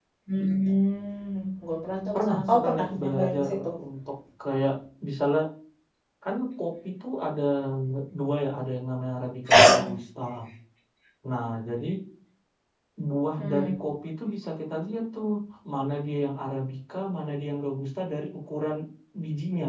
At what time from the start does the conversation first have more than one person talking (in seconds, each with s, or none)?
2.1 s